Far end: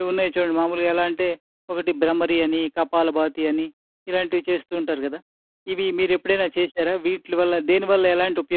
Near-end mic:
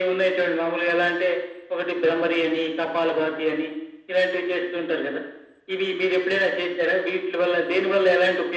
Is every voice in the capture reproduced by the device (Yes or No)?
Yes